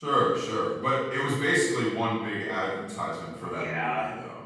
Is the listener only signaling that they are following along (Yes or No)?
No